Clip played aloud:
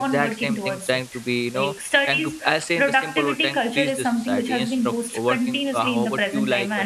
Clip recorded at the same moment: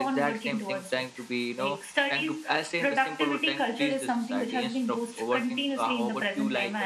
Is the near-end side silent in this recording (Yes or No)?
Yes